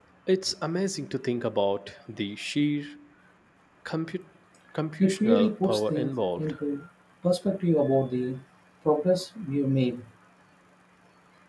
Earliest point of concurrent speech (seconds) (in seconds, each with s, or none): 5.0 s